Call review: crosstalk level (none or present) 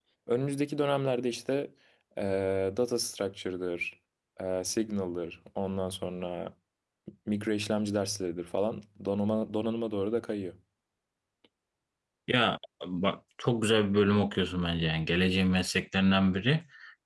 none